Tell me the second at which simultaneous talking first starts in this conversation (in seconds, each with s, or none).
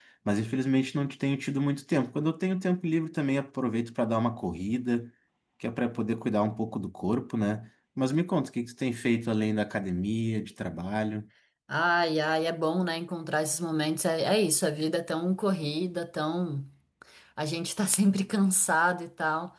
none